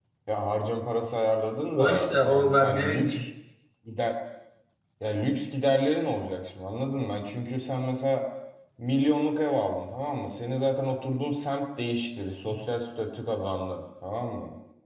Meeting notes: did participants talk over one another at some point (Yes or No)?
Yes